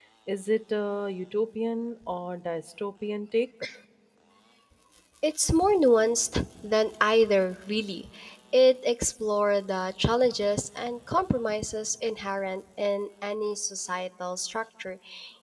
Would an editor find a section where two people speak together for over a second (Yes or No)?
No